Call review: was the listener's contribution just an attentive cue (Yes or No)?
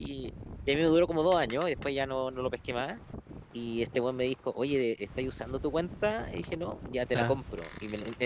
Yes